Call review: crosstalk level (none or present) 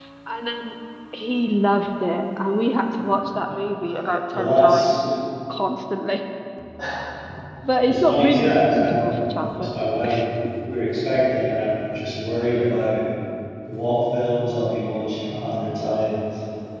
present